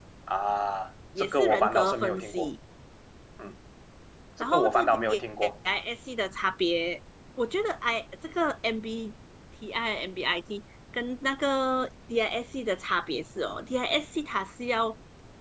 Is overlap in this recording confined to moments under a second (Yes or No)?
No